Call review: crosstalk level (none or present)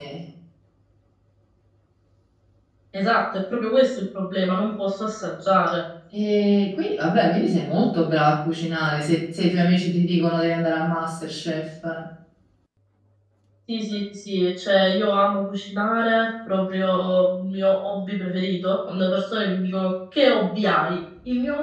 none